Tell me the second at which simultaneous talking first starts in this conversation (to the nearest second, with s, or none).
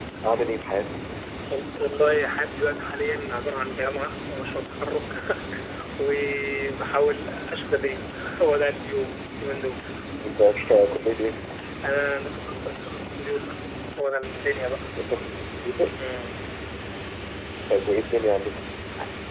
none